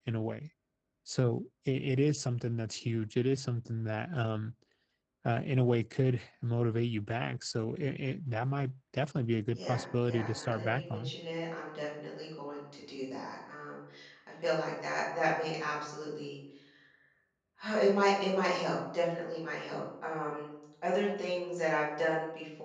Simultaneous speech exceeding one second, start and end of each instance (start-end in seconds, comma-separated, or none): 9.6-11.1